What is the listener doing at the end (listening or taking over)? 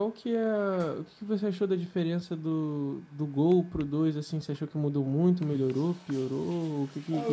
taking over